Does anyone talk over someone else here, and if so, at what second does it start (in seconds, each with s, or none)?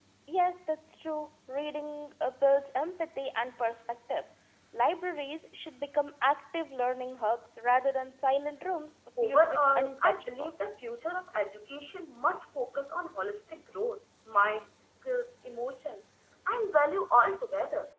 9.2 s